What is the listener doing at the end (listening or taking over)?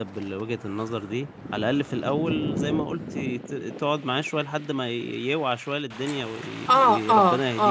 taking over